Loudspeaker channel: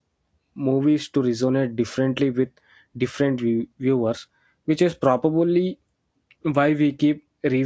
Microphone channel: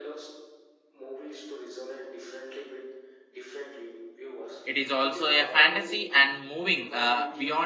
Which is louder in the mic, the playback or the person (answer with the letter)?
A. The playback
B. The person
B